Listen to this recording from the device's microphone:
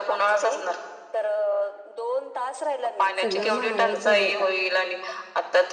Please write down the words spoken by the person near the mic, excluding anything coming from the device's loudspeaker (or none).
सगळं महागाईच झाले आता